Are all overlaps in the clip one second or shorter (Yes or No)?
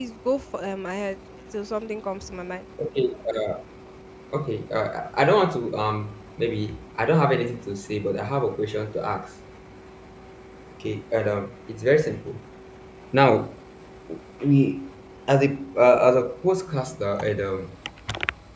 Yes